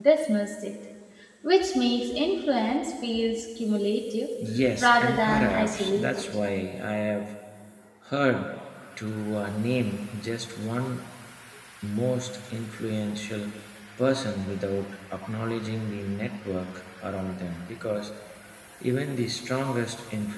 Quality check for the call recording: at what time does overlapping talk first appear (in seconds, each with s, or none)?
4.8 s